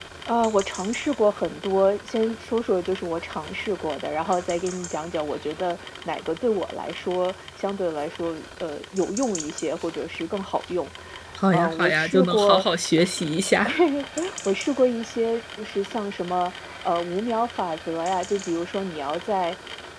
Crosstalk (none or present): present